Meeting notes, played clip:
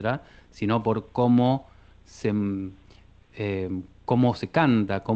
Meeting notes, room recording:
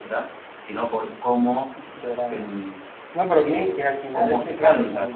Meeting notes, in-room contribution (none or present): present